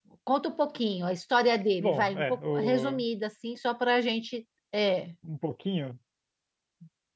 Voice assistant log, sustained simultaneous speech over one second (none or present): present